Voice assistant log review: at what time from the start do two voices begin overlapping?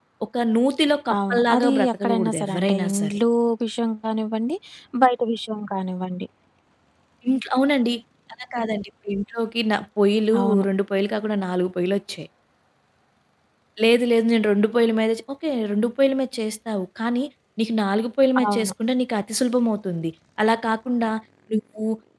1.3 s

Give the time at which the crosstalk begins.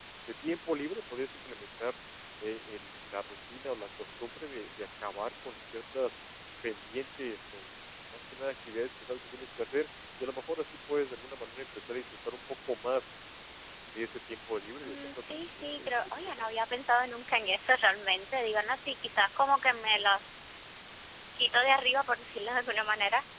14.8 s

